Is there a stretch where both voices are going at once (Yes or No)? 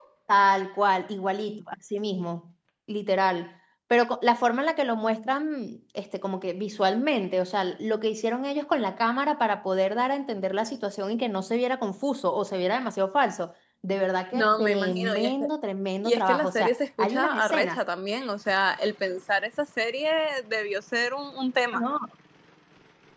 Yes